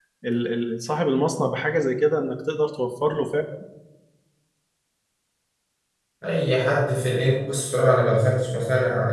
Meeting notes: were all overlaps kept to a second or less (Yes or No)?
Yes